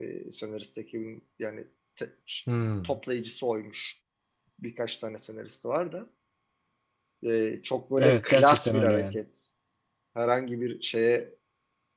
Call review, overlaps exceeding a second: present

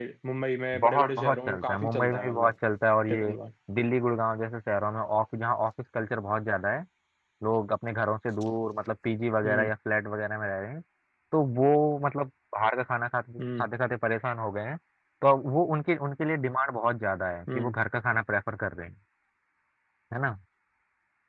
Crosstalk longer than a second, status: present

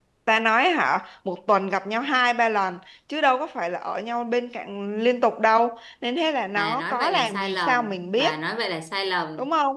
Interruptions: present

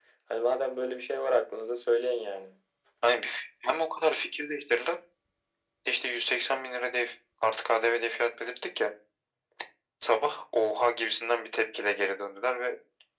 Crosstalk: none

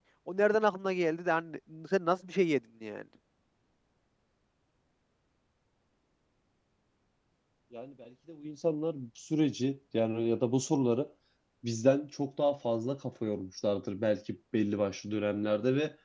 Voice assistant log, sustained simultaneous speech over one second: none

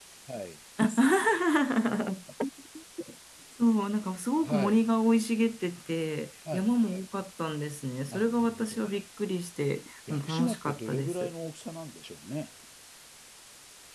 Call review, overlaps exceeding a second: present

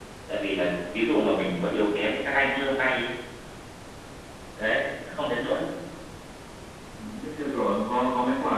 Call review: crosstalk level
none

